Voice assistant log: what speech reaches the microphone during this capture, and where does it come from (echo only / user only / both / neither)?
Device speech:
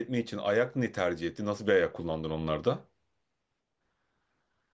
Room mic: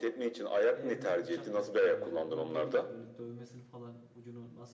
both